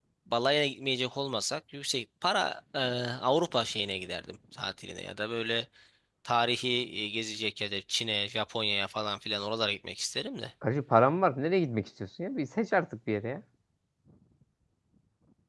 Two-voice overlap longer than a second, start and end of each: none

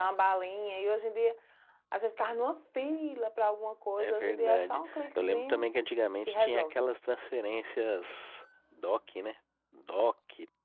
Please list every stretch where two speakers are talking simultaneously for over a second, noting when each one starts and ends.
4.0-5.7

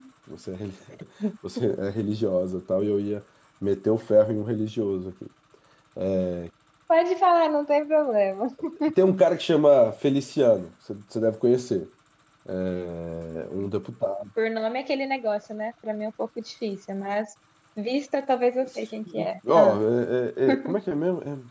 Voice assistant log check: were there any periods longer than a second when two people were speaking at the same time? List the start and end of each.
none

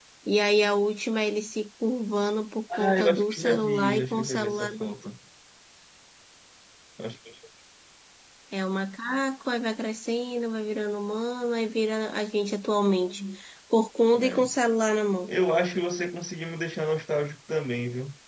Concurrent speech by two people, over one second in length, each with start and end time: 2.8-4.9

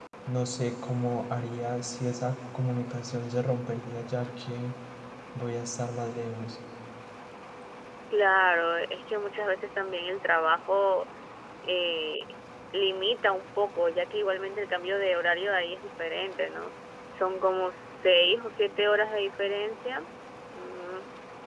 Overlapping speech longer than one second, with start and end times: none

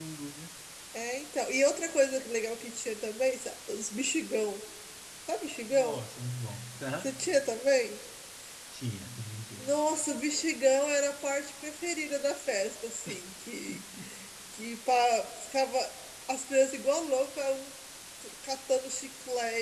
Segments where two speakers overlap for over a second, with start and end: none

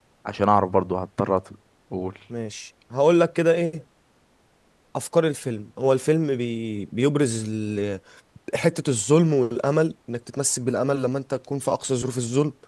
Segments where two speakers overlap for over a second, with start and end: none

